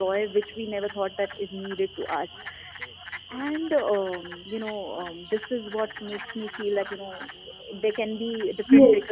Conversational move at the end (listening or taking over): taking over